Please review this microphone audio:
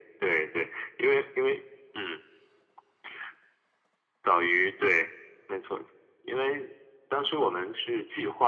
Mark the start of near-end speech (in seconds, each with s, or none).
none